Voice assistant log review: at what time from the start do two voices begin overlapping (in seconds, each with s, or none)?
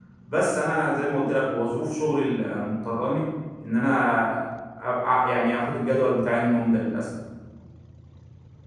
none